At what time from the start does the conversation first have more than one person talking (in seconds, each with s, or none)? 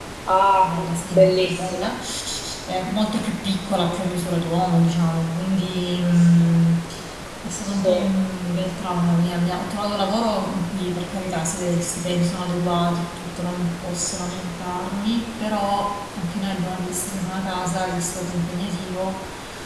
0.6 s